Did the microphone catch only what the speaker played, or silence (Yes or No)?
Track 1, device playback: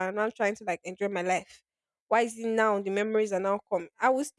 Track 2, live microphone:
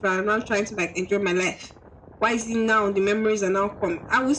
Yes